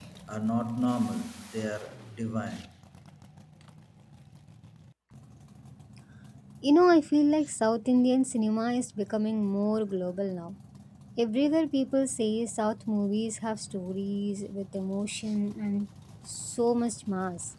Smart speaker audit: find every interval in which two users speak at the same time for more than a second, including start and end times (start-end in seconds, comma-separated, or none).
none